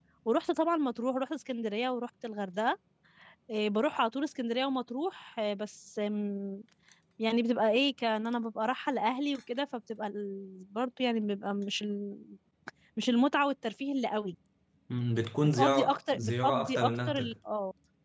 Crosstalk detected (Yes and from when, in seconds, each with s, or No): Yes, from 15.4 s